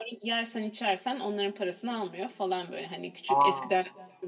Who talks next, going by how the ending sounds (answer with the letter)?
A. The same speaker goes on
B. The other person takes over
A